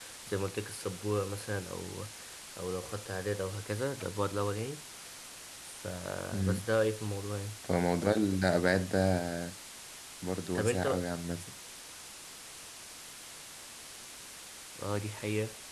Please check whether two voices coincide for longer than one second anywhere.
No

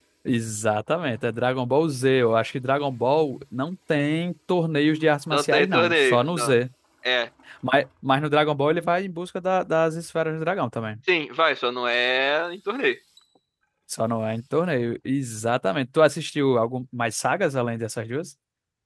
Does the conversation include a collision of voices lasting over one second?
Yes, from 5.3 s

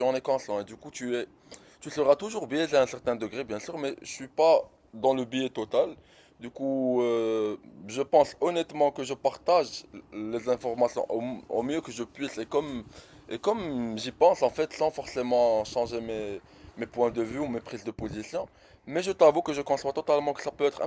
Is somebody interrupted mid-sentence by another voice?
No

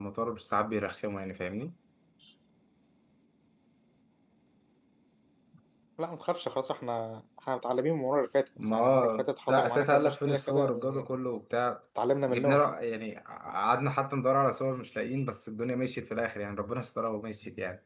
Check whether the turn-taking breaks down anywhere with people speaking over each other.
Yes, from 8.7 s

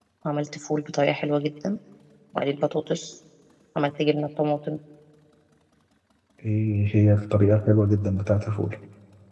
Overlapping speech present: No

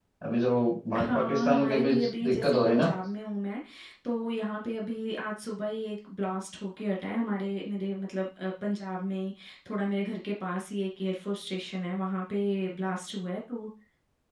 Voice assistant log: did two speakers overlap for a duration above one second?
Yes, from 1.1 s

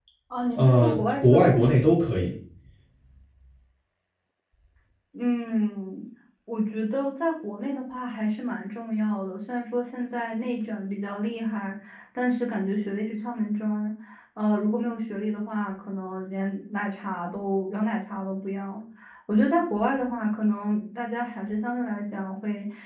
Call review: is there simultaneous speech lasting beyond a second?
Yes, from 0.6 s

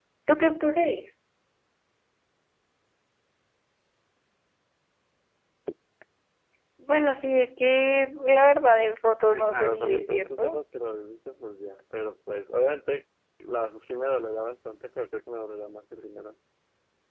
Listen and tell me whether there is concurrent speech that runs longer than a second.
Yes, from 9.3 s

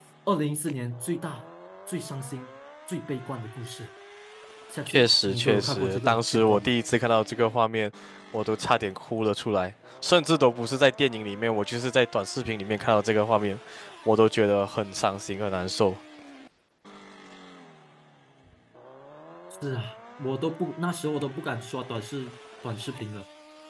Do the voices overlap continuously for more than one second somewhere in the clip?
Yes, from 4.9 s

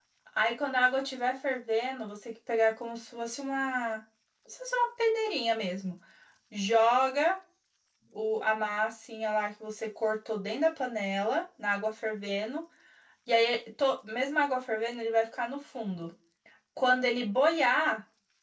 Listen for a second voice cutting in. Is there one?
No

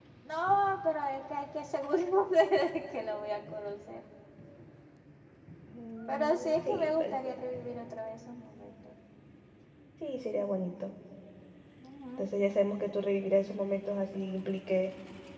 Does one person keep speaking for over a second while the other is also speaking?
Yes, from 6.1 s

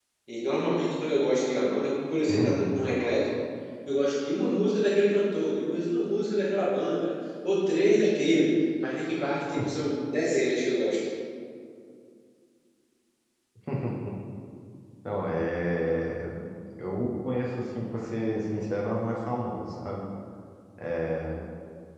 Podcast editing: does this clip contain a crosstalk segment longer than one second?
No

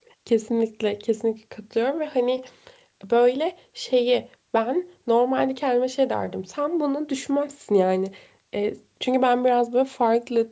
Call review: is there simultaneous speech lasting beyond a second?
No

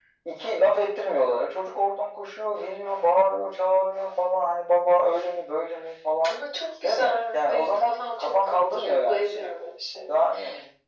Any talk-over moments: Yes, from 6.8 s

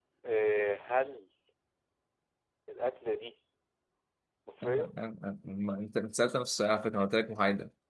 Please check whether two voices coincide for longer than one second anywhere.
No

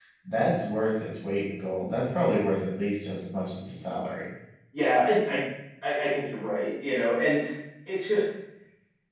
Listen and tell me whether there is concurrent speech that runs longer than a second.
No

